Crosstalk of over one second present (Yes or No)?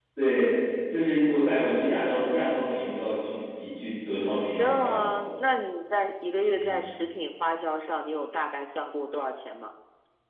No